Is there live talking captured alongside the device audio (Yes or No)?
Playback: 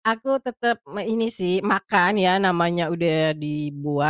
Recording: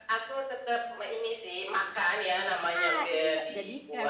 Yes